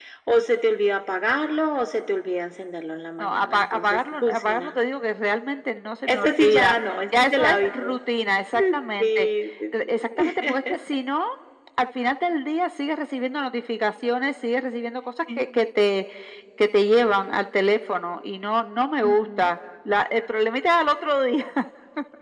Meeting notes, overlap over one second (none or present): present